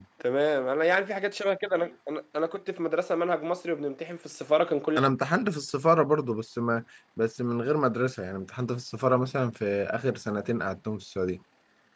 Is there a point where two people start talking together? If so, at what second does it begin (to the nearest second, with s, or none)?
none